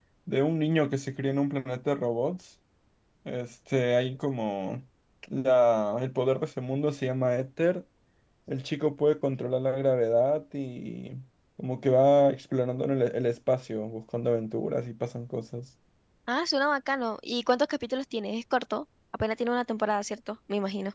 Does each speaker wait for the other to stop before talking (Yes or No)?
Yes